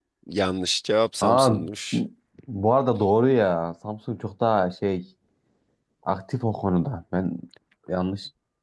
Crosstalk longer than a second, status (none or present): none